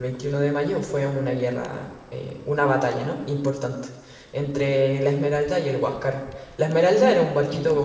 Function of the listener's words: listening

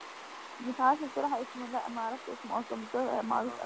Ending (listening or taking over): taking over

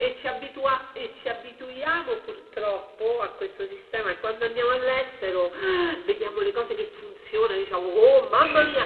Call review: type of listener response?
listening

